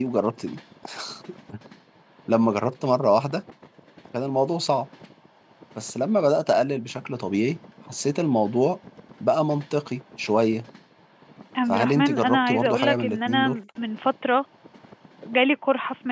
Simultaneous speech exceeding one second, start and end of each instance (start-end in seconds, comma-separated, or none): 11.7-13.6